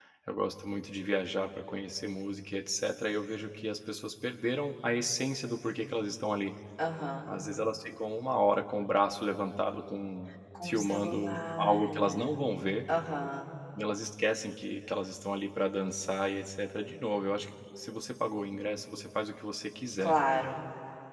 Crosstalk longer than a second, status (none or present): present